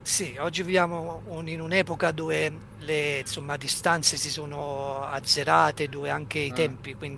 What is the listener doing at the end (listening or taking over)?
listening